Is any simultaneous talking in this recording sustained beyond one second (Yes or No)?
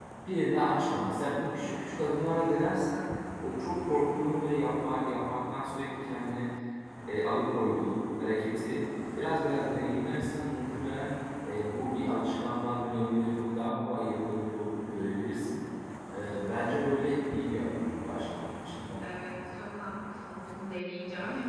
No